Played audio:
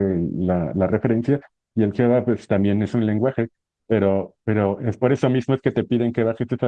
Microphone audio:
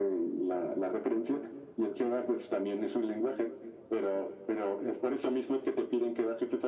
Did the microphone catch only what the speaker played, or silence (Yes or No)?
Yes